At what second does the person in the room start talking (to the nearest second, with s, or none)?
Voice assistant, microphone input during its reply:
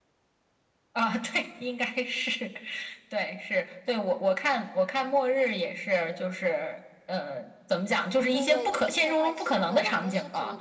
8 s